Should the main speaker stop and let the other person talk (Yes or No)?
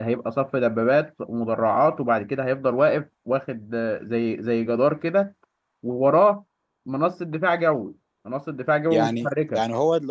Yes